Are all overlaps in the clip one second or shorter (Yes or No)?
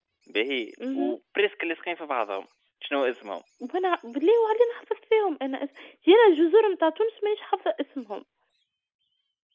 Yes